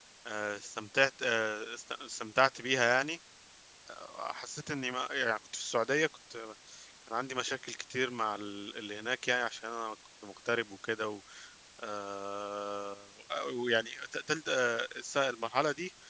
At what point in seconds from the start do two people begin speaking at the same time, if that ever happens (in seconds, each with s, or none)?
none